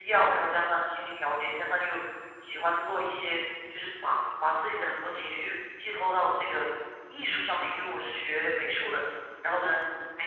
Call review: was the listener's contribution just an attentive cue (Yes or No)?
Yes